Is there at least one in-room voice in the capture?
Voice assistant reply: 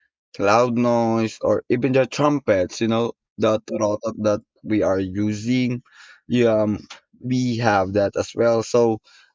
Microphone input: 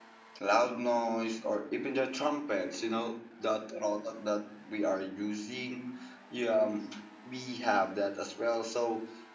No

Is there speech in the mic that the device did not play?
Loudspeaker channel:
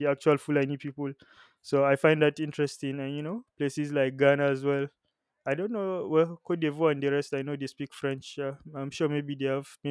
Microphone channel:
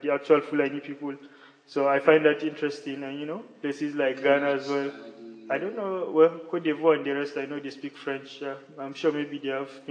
Yes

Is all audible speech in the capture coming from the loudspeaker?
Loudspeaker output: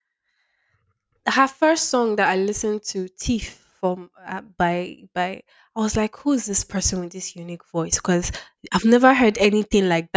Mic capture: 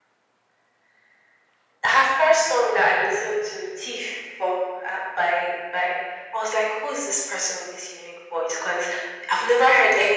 Yes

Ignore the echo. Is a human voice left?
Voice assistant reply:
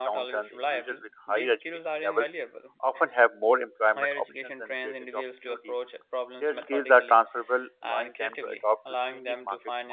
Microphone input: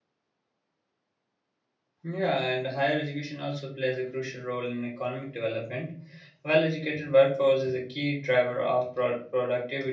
Yes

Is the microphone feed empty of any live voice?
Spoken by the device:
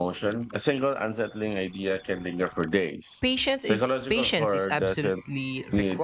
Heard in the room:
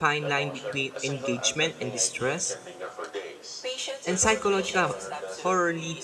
No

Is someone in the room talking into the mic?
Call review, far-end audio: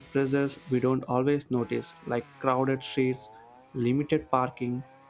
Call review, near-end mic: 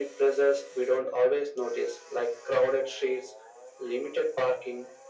No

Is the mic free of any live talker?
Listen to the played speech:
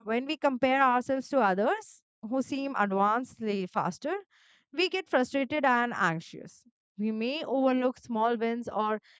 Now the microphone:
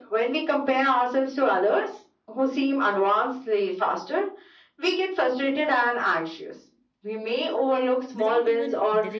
No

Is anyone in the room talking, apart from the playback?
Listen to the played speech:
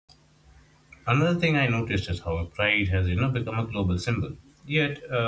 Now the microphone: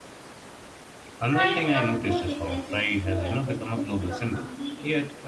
Yes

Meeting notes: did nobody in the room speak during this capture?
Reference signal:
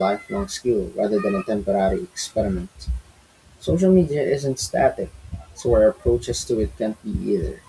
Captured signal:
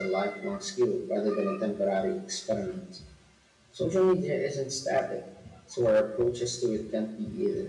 Yes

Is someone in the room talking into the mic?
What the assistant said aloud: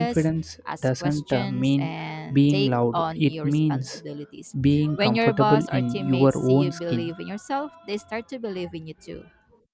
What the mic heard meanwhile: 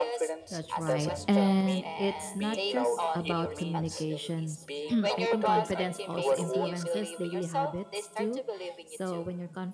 Yes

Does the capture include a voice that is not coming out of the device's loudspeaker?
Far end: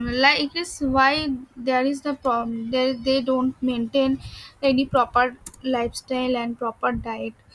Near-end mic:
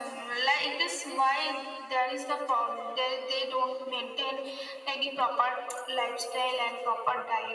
No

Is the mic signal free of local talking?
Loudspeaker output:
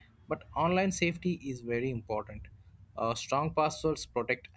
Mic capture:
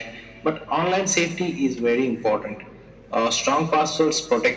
Yes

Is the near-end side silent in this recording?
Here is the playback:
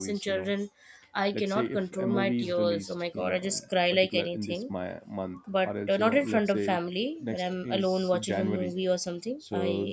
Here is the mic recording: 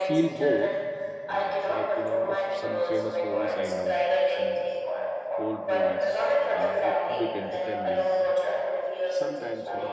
No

